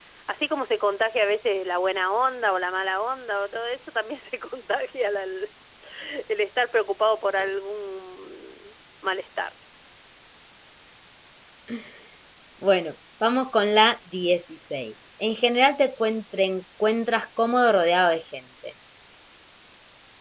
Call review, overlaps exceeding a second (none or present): none